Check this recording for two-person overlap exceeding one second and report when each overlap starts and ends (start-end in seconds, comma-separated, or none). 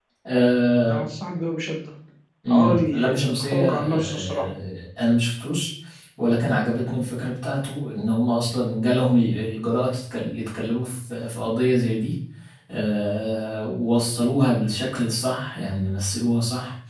2.5-4.4